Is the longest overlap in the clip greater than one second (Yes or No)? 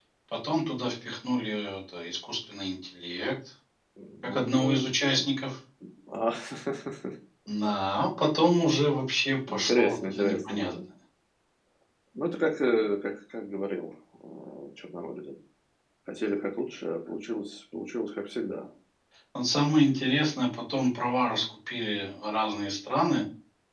Yes